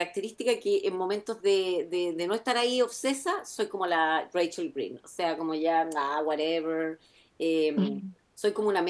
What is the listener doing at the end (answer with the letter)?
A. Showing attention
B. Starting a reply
A